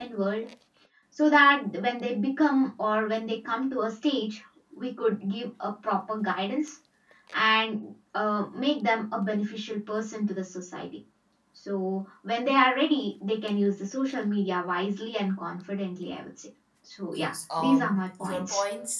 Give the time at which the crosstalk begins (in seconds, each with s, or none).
17.1 s